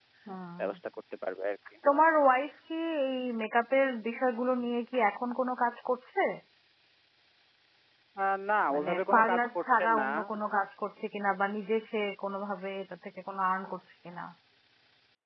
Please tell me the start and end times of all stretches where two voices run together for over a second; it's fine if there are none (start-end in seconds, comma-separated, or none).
8.7-10.1